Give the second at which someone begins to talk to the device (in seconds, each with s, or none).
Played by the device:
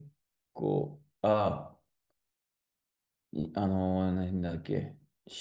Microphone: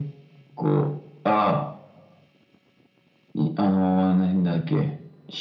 none